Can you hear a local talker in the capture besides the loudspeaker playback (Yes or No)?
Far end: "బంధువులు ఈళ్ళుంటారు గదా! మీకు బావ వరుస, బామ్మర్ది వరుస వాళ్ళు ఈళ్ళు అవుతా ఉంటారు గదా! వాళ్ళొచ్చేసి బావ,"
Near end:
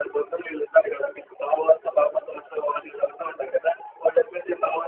No